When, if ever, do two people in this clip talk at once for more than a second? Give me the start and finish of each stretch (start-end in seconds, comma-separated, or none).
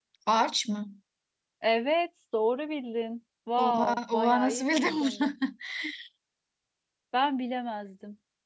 3.6-5.3